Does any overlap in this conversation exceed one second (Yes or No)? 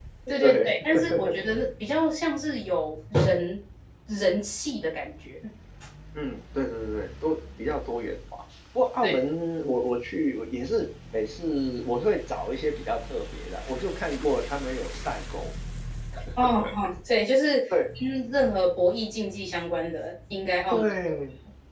No